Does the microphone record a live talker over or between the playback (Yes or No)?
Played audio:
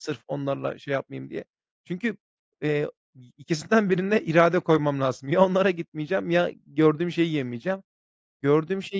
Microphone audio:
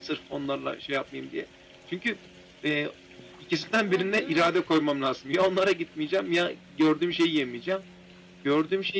Yes